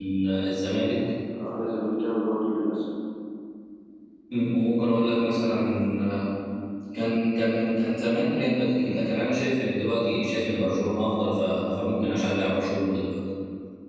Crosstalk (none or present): none